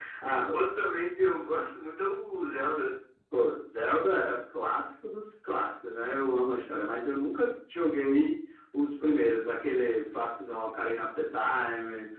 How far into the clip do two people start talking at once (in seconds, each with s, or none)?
none